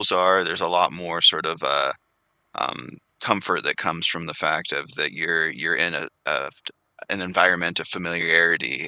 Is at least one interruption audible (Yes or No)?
No